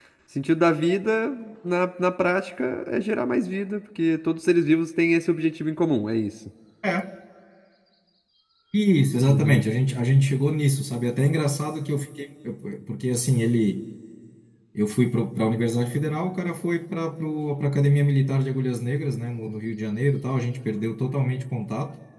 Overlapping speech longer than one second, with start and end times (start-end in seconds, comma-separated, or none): none